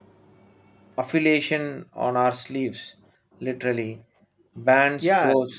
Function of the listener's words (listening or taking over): taking over